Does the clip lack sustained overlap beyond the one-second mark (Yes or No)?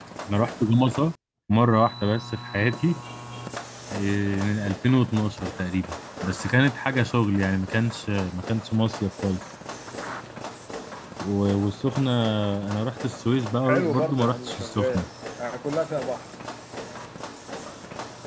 No